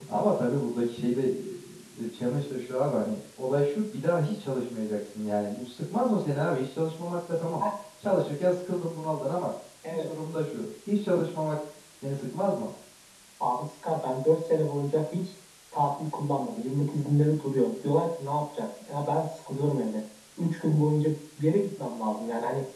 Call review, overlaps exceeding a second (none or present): none